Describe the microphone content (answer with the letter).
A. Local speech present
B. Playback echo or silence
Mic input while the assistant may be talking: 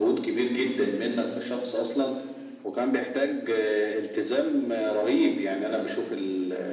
B